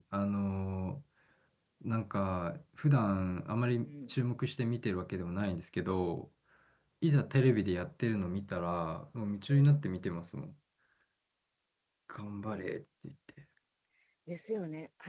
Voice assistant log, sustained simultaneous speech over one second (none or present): none